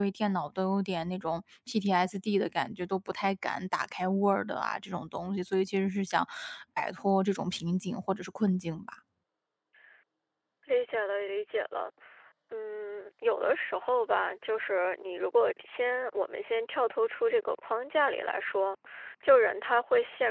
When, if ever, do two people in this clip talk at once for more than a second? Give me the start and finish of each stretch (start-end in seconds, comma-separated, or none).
none